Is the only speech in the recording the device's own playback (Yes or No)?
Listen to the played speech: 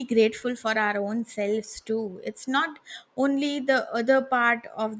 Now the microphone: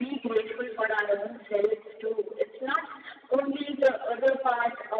Yes